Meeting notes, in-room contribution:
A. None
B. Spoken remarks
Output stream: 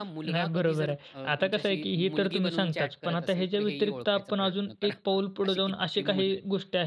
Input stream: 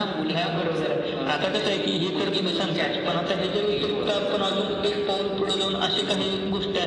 A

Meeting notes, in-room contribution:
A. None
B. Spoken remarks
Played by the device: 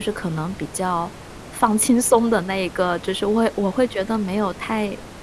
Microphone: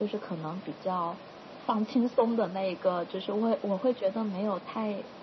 A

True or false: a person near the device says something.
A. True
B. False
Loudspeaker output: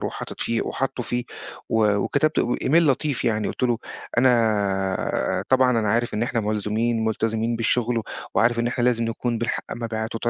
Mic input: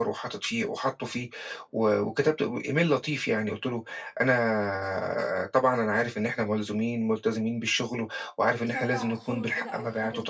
A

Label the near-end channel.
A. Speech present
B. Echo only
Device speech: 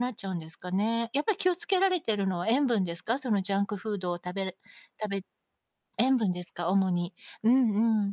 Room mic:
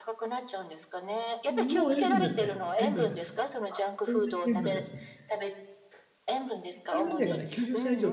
A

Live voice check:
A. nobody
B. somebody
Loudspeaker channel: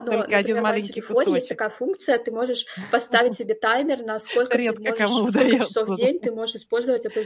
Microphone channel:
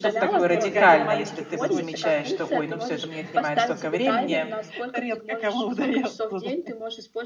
B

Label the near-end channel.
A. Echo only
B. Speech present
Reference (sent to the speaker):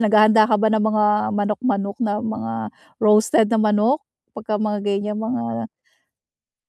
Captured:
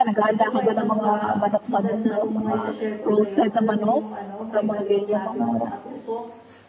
B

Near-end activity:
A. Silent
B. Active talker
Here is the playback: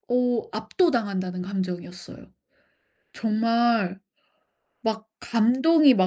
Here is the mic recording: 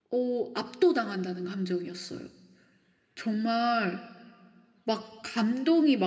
A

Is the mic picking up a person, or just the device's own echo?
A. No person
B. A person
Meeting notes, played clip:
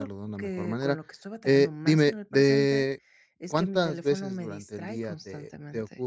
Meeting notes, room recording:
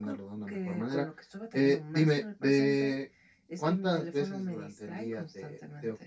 A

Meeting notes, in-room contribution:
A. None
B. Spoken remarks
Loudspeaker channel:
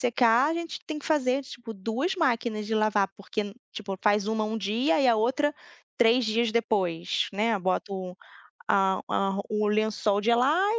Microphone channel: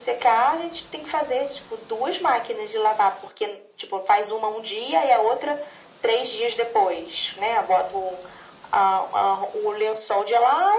A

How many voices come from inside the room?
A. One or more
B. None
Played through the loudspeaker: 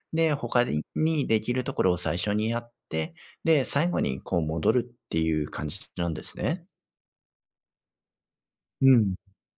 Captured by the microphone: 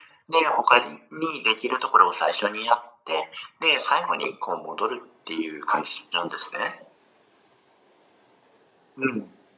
B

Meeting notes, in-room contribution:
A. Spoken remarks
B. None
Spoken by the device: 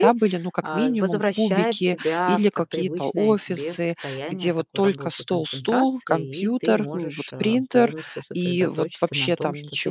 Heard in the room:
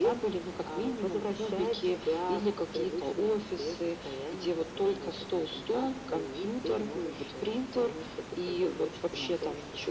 B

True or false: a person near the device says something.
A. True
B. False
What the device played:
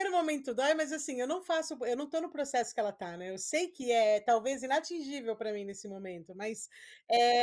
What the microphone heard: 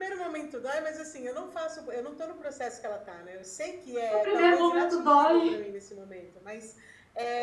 A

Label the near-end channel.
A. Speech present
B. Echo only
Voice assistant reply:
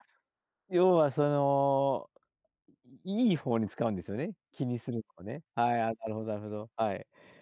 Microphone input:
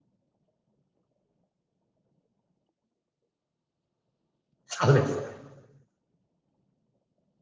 A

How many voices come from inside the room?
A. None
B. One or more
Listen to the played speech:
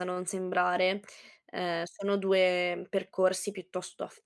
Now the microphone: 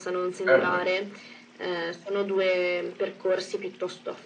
B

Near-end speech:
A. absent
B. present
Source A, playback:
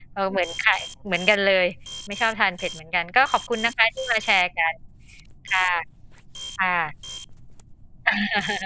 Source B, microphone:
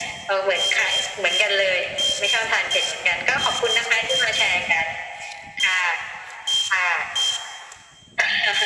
A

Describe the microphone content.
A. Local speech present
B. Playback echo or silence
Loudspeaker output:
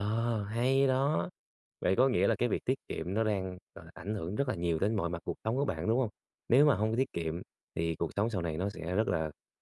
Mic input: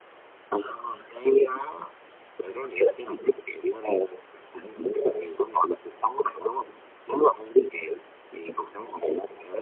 B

